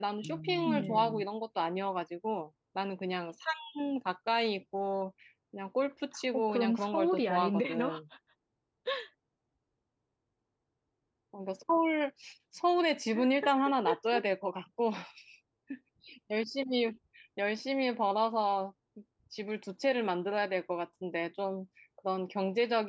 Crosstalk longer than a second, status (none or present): present